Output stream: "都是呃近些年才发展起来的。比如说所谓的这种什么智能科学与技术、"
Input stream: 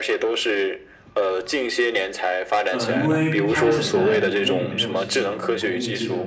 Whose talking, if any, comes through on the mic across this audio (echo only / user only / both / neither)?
both